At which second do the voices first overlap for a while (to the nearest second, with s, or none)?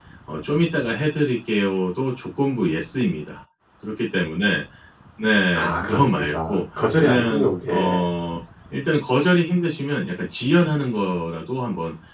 6 s